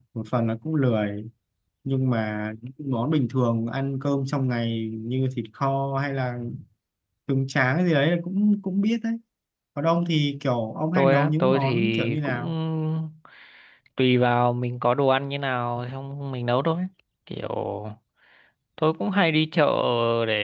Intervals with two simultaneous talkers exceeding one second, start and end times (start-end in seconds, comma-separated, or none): 10.9-12.5